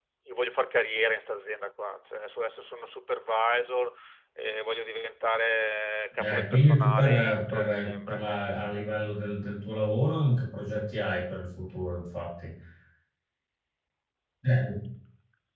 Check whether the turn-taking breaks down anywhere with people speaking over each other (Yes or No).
Yes